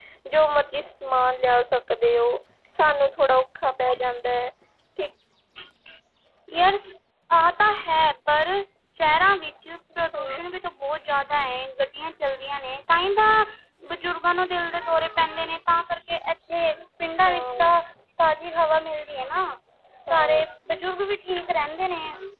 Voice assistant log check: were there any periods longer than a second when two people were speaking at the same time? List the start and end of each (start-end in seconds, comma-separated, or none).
none